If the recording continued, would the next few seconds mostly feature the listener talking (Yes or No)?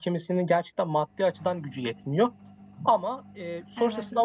No